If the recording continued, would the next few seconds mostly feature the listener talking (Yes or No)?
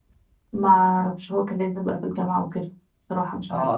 Yes